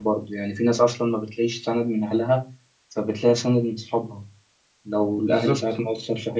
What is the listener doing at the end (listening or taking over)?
listening